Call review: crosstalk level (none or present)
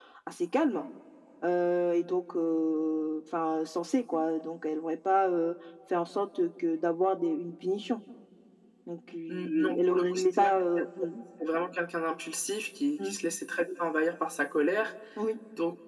present